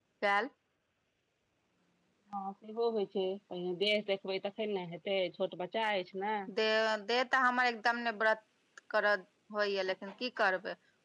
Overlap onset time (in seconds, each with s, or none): none